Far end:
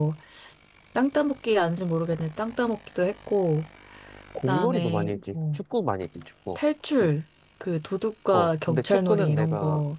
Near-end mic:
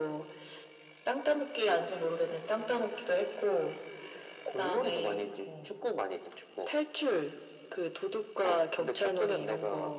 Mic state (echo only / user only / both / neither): echo only